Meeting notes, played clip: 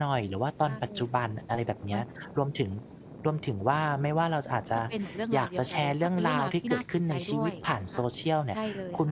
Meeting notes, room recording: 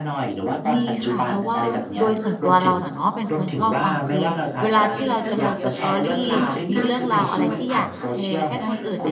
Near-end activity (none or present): present